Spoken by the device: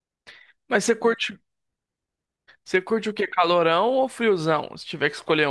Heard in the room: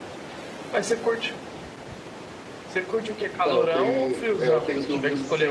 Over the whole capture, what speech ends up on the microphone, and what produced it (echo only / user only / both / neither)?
both